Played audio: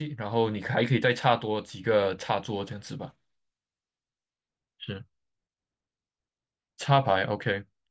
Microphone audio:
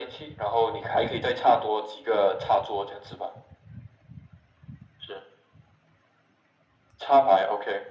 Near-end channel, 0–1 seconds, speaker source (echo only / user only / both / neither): echo only